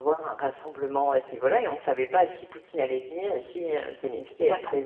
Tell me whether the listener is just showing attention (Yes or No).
Yes